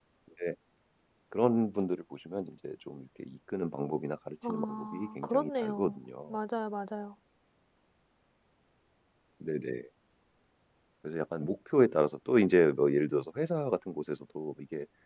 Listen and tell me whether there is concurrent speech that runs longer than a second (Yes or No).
Yes